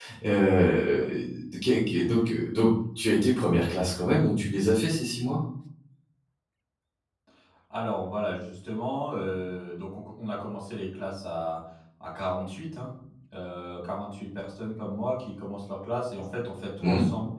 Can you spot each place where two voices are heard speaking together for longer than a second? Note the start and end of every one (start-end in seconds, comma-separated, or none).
none